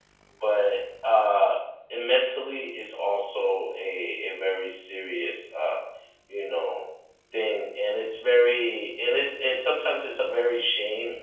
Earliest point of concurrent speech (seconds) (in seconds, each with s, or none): none